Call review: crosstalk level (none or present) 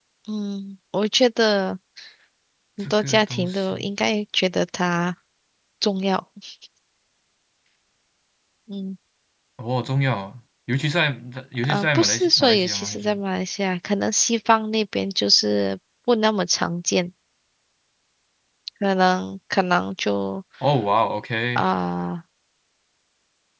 present